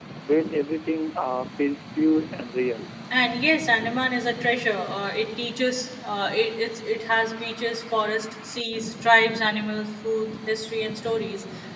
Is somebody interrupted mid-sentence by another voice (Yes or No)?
No